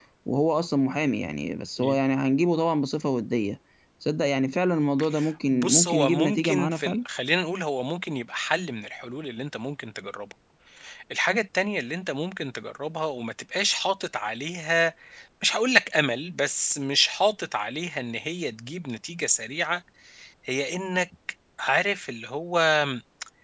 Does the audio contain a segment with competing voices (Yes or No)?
Yes